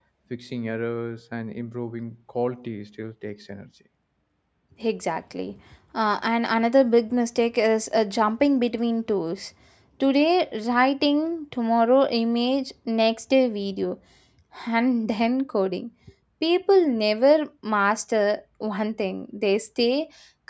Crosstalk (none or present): none